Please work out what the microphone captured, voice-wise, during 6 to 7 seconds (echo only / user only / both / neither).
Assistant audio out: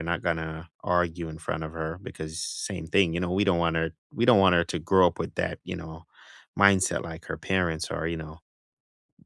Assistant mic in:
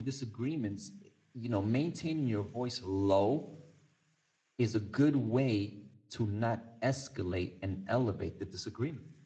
user only